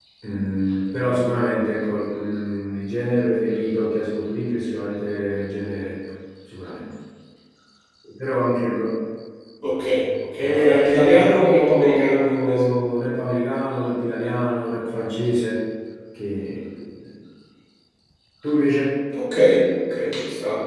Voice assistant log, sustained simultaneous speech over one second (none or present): present